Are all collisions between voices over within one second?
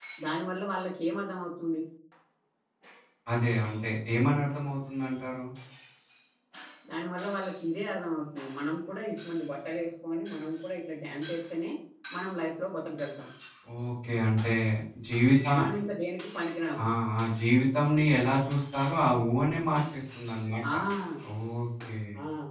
Yes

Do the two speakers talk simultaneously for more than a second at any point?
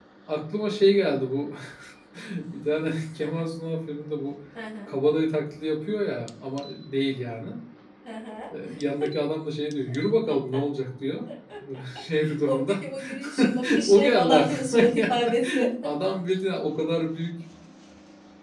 Yes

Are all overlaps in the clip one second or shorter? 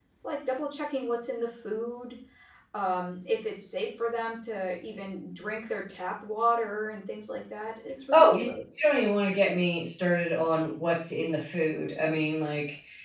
Yes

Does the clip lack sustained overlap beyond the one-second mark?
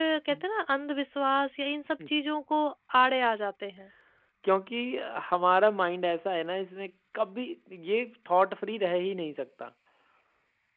Yes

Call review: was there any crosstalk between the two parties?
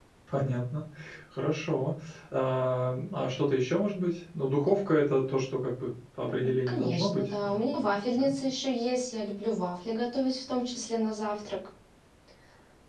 Yes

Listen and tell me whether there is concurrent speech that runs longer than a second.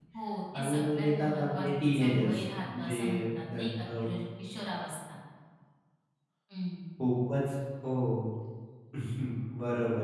Yes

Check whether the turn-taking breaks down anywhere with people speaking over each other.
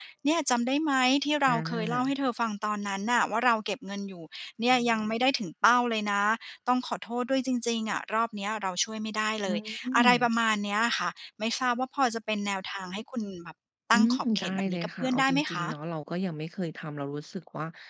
Yes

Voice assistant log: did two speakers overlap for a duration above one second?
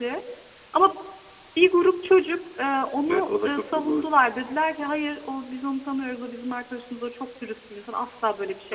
Yes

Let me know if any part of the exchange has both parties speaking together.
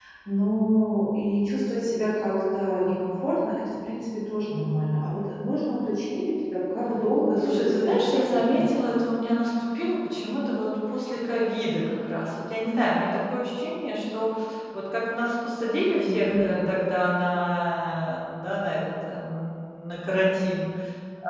Yes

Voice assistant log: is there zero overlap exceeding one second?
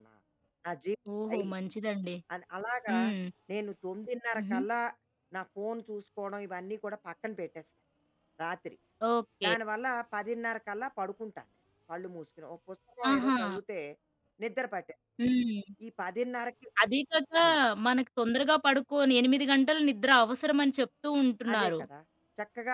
Yes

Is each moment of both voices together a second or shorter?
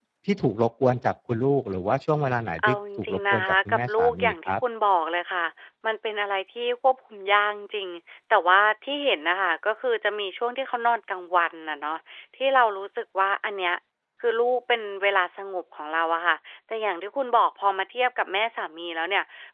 No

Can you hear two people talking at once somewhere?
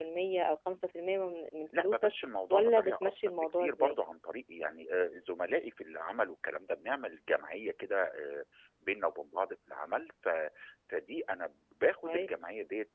Yes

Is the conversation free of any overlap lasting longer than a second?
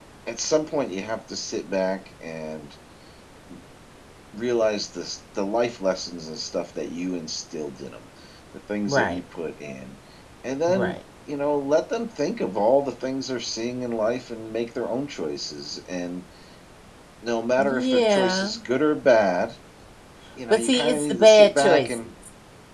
No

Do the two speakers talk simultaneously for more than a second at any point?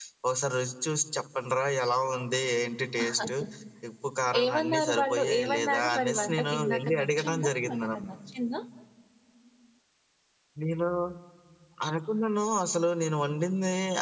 Yes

